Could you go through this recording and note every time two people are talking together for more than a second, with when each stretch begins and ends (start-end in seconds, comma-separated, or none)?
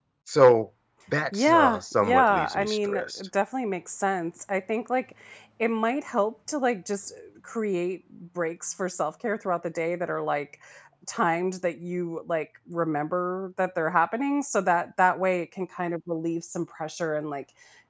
1.3-3.3